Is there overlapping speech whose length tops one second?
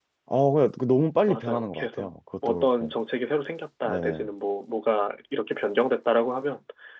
Yes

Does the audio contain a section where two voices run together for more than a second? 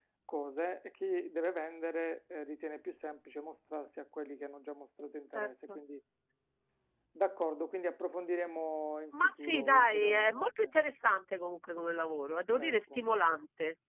Yes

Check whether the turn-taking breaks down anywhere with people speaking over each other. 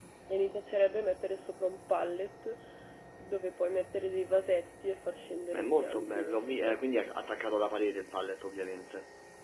Yes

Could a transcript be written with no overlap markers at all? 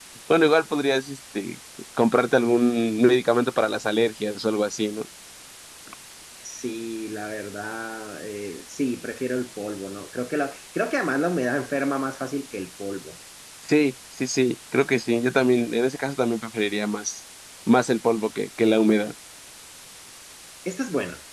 Yes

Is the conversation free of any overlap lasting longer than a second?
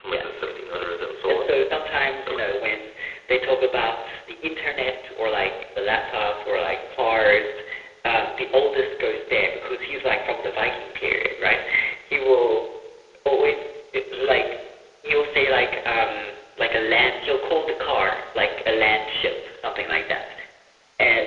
Yes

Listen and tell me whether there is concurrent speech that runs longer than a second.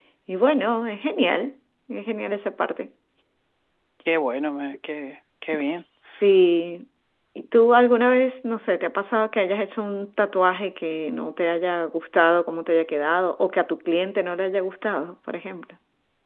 No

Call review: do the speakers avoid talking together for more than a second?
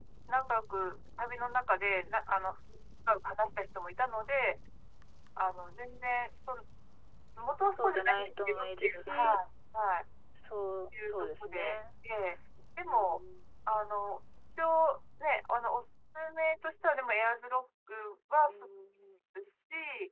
No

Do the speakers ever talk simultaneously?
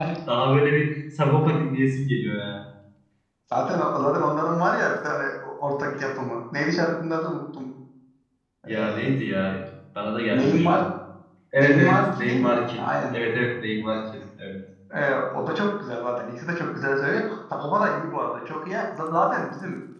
Yes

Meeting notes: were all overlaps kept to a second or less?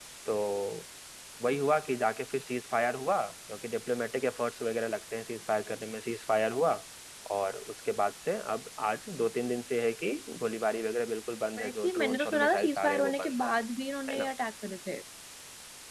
No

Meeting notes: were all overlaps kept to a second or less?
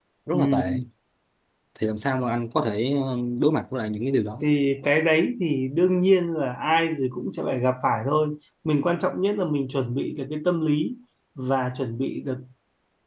Yes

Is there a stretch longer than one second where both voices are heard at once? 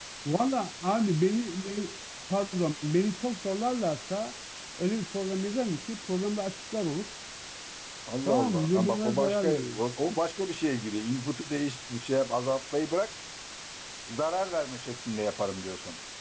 Yes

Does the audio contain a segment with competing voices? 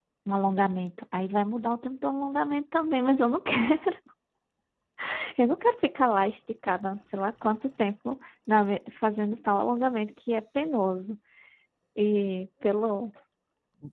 No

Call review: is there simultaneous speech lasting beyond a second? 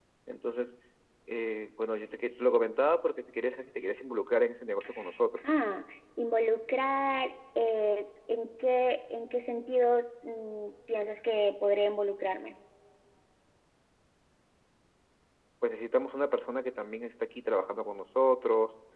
No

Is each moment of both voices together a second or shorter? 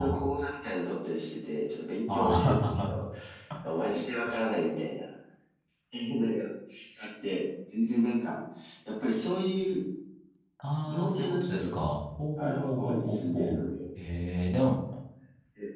No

